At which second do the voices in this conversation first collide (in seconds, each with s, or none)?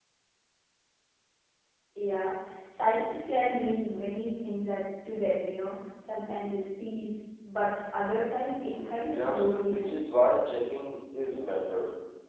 8.7 s